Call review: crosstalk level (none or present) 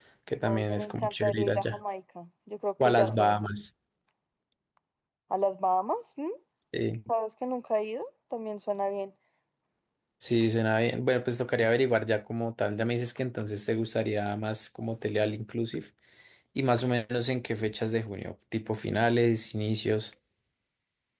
present